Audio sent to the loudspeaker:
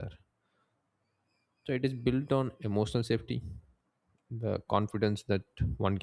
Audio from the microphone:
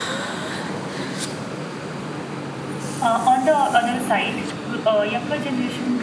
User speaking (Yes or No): Yes